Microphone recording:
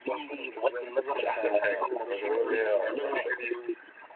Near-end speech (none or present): present